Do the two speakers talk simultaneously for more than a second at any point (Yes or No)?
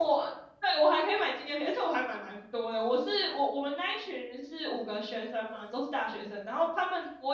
No